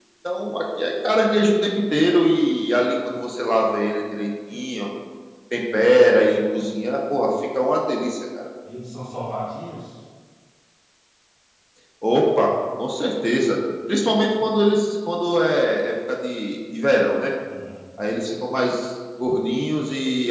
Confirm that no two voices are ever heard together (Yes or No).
Yes